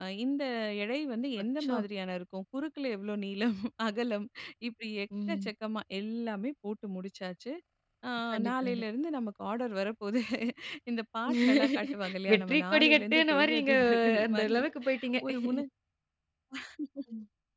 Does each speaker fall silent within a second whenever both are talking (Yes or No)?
No